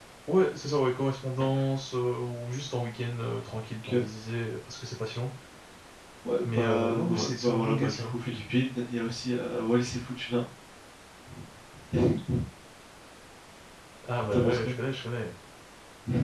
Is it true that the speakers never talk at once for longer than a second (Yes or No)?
No